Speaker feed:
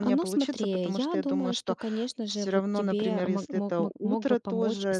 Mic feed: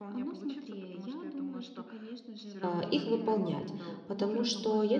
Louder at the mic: user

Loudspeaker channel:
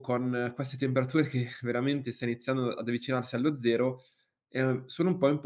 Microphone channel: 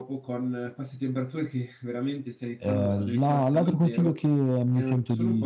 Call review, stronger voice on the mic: user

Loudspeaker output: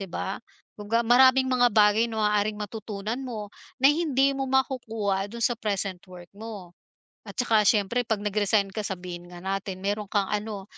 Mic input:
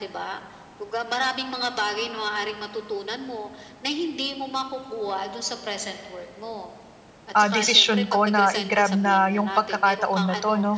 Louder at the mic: user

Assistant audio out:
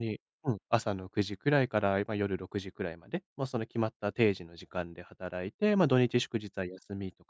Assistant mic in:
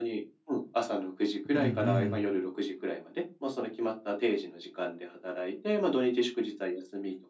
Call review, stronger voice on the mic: user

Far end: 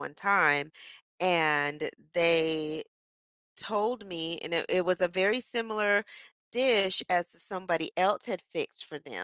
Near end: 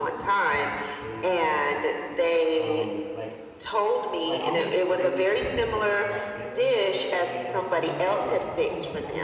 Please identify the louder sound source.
echo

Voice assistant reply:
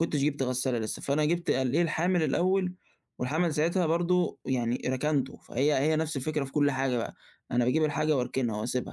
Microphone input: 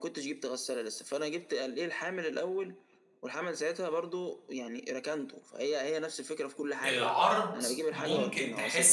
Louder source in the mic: user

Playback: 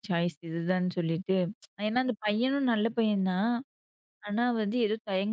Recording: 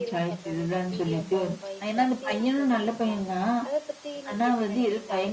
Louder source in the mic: echo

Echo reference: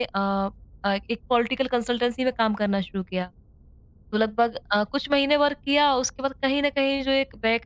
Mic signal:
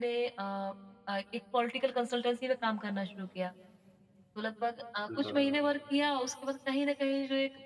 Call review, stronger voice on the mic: echo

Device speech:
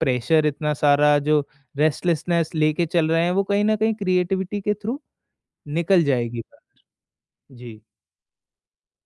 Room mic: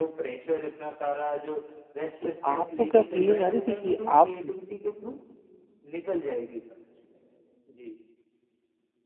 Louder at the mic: user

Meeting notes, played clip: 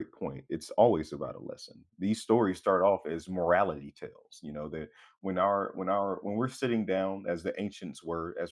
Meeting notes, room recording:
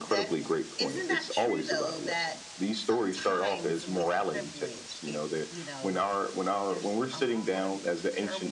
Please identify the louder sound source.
echo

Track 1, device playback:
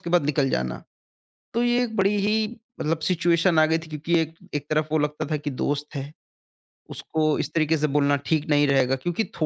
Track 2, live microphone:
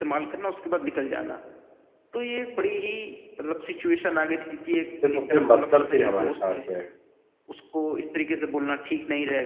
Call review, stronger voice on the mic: user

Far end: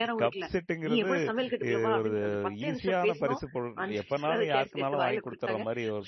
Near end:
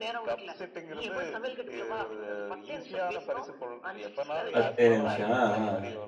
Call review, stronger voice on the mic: user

